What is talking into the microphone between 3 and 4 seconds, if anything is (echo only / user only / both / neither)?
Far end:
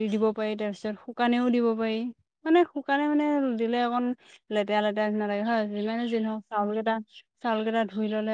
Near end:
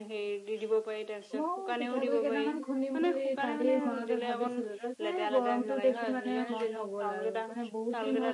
both